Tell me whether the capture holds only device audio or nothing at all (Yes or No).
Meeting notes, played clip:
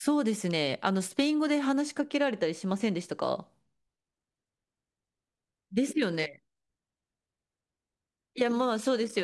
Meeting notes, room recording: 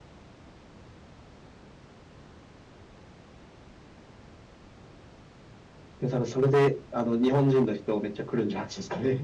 No